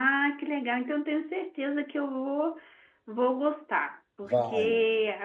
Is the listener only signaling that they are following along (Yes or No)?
Yes